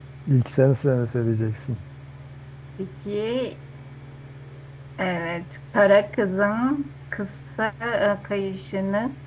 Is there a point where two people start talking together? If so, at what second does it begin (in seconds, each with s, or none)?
none